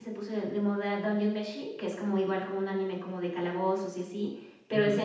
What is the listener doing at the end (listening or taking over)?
listening